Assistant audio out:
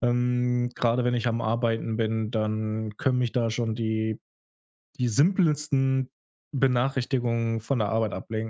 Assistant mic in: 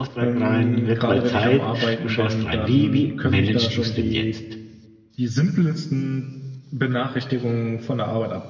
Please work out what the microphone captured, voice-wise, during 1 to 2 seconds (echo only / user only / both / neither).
both